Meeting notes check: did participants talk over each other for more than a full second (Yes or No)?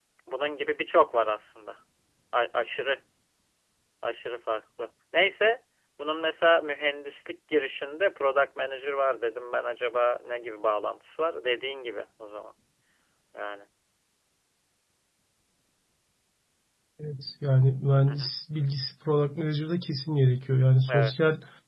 No